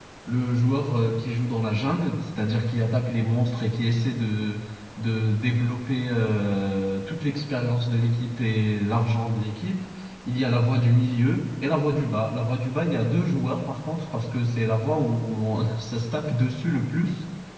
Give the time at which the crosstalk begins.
none

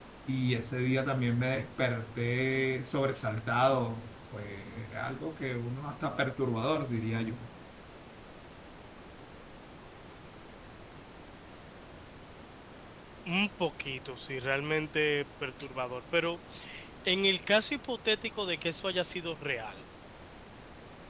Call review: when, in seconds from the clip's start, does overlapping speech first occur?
none

